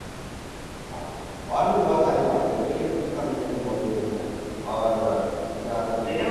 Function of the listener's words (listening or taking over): taking over